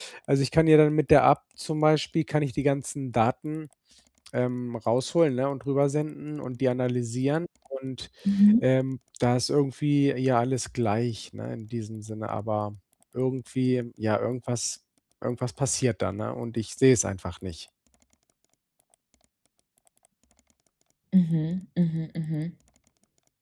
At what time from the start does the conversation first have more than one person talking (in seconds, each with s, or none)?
none